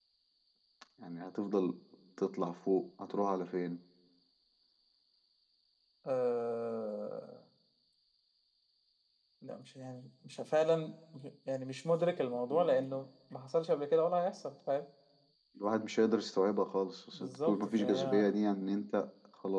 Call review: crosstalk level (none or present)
present